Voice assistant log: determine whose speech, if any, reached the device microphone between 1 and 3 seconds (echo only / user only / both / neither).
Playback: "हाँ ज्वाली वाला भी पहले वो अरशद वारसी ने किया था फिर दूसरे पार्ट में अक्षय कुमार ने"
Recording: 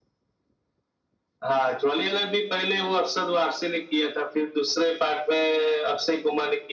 echo only